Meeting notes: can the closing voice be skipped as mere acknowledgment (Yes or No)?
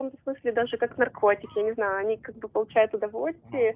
Yes